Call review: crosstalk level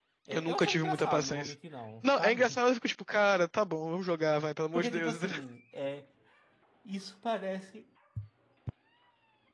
present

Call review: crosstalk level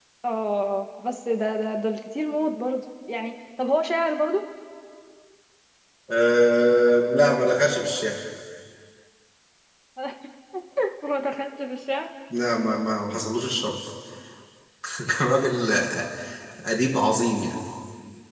none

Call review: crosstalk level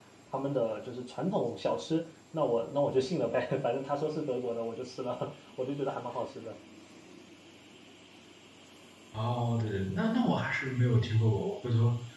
none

